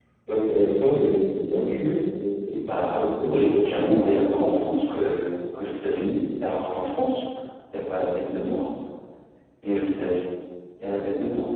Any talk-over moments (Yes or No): Yes